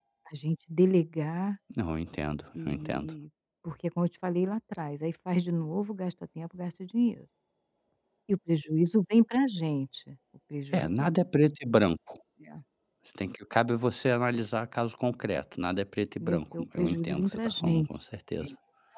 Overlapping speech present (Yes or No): Yes